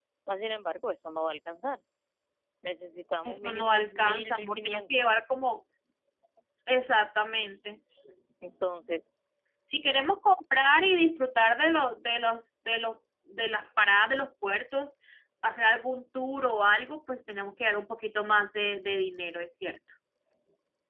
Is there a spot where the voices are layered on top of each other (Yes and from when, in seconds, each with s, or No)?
Yes, from 3.2 s